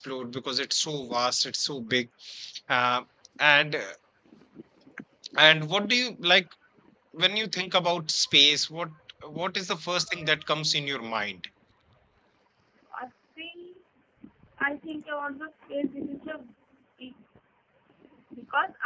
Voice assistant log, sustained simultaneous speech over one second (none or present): none